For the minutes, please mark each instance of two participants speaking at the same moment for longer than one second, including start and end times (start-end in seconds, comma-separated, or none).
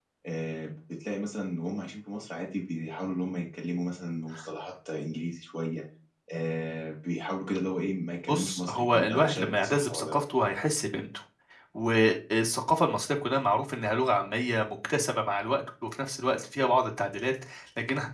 8.3-10.2